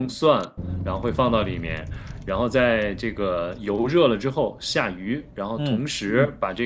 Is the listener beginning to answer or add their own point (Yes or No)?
No